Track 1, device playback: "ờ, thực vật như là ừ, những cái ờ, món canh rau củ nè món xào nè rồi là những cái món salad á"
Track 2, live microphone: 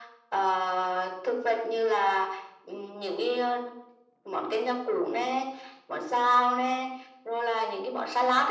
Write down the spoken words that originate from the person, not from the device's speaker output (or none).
none